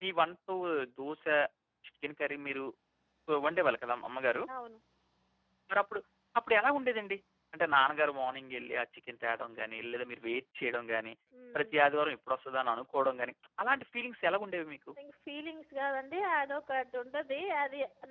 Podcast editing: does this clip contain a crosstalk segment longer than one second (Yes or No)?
No